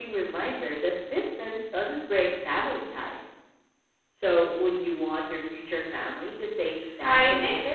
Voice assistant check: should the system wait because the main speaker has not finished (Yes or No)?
No